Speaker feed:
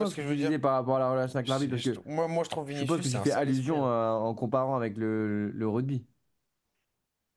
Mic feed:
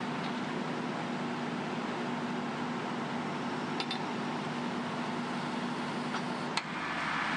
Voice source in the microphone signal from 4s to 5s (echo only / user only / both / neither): neither